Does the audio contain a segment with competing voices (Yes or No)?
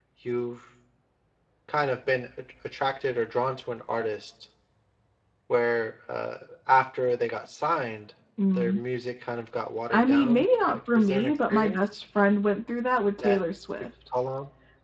Yes